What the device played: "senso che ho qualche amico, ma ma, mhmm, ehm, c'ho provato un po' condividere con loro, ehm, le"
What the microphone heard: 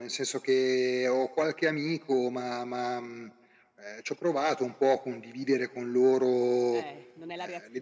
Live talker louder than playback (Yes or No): No